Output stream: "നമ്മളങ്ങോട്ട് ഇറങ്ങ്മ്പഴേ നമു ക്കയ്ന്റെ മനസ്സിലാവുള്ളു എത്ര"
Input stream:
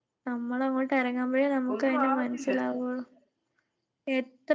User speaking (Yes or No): Yes